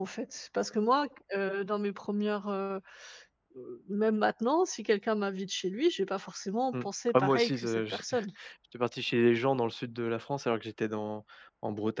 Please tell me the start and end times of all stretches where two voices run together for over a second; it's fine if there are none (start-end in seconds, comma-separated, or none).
6.7-8.1